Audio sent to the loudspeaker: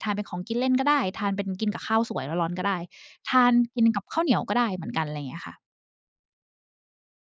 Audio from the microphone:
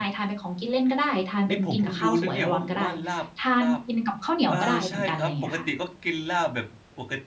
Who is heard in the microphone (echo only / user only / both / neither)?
both